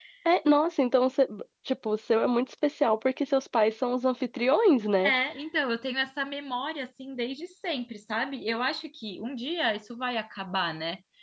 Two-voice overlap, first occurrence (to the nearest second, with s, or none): none